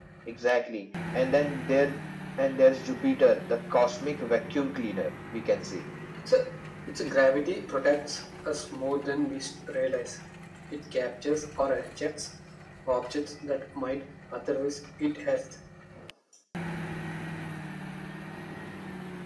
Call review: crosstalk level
none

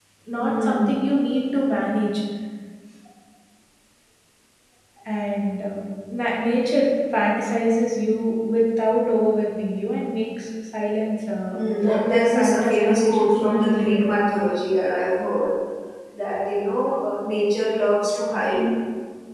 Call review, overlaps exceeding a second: present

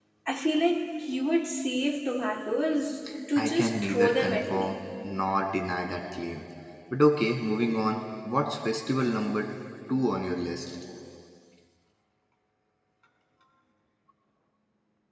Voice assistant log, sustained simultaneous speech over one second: present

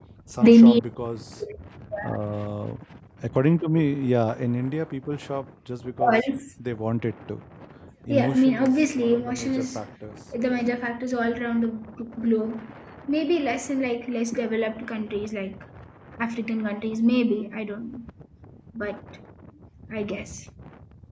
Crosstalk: present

